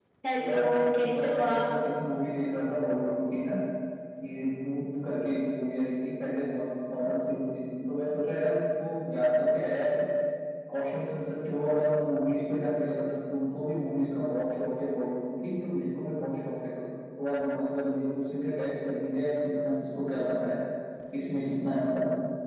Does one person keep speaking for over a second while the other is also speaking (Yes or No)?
Yes